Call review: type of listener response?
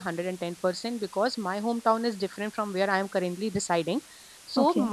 listening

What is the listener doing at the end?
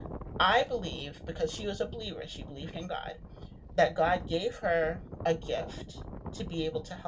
listening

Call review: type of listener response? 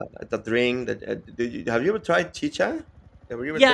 taking over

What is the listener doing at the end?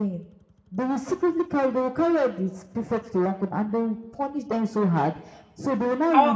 listening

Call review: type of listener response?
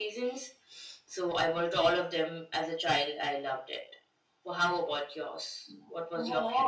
taking over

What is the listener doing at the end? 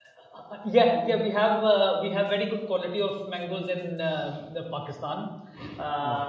listening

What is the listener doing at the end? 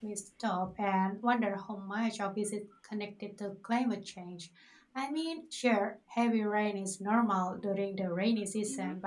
listening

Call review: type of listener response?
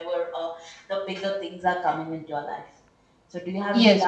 taking over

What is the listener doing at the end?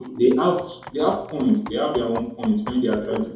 listening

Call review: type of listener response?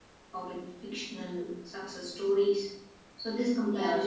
listening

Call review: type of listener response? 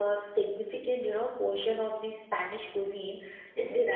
listening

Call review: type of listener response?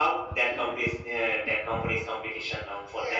taking over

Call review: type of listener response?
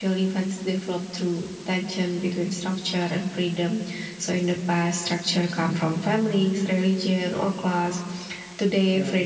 listening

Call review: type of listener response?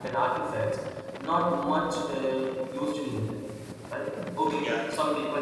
listening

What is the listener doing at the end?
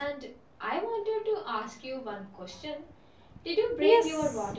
taking over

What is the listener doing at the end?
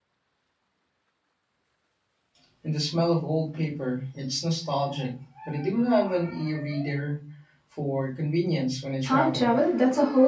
taking over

